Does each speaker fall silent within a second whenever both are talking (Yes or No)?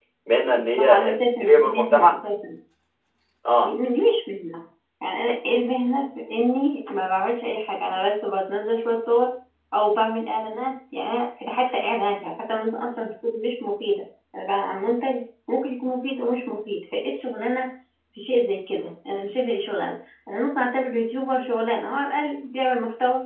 No